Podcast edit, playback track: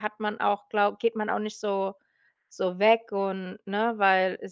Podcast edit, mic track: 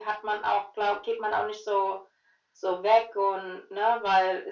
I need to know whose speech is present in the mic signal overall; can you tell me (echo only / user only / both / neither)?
echo only